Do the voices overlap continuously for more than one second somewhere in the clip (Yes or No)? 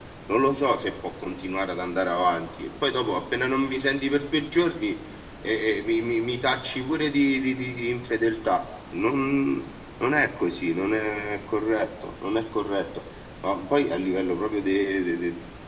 No